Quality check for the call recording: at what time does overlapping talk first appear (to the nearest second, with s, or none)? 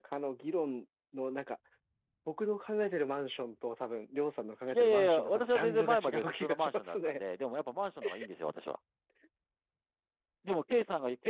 5 s